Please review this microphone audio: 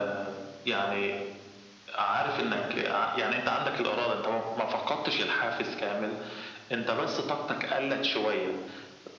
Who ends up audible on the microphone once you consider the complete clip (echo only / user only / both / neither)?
echo only